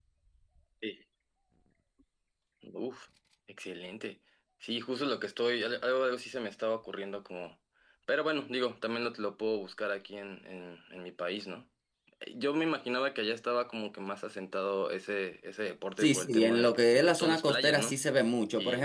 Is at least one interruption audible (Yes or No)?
Yes